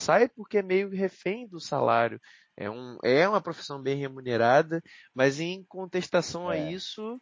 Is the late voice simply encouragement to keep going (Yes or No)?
Yes